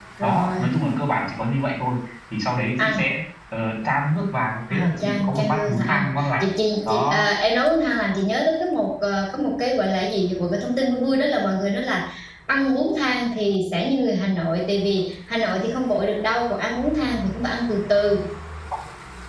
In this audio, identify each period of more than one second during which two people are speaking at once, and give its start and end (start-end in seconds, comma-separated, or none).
4.7-6.4